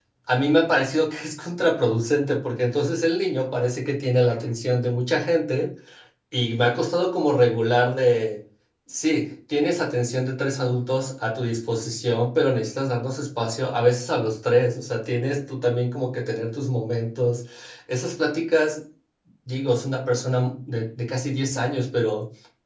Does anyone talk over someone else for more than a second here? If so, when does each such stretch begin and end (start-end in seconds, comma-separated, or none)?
none